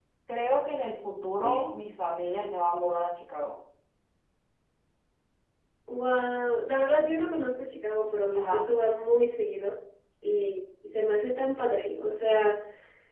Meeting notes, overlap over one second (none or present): none